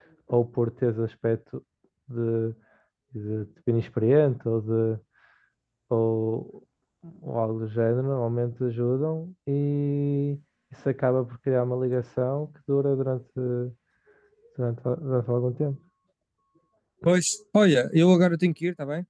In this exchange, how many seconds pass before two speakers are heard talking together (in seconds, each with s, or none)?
none